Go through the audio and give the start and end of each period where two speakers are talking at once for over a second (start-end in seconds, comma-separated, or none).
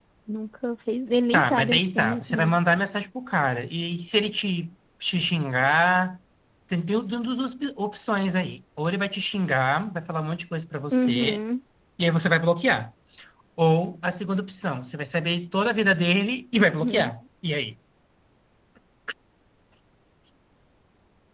1.3-2.6